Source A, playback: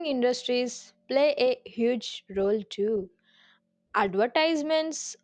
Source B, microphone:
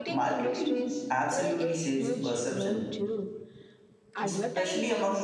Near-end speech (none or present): present